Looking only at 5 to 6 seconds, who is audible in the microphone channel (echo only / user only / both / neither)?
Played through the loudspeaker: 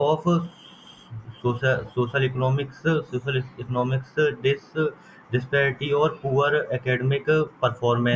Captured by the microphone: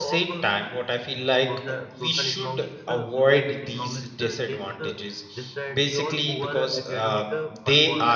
both